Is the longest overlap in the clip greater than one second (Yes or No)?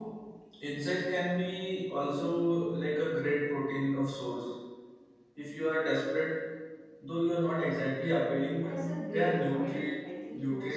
Yes